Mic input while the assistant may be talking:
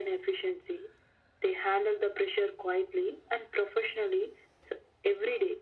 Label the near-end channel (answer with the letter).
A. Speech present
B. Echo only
B